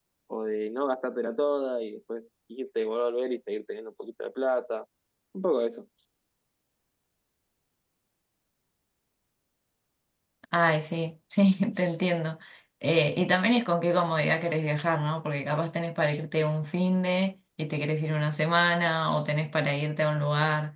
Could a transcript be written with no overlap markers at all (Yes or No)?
Yes